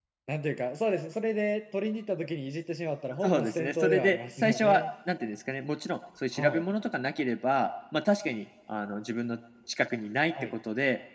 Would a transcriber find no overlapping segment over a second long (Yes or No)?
No